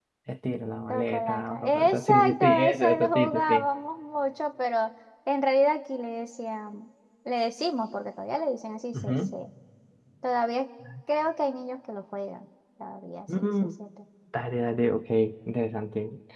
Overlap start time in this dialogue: 1 s

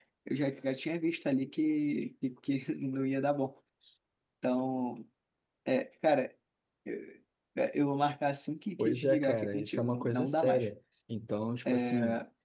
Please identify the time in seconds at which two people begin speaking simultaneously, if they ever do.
9 s

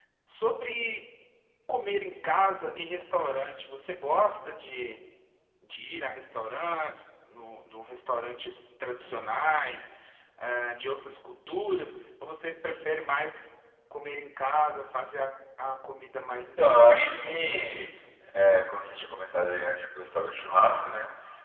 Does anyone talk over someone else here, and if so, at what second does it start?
17 s

